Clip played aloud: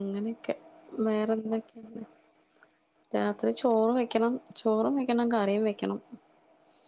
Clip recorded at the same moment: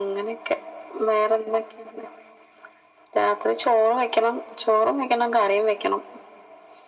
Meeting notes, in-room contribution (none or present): none